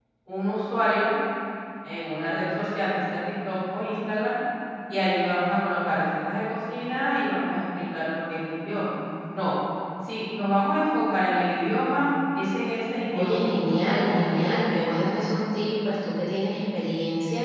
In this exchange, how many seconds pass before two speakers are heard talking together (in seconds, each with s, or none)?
13.1 s